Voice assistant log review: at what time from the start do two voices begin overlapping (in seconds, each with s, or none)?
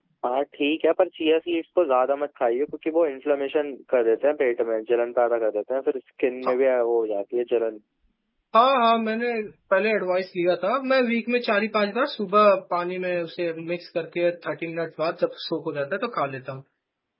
none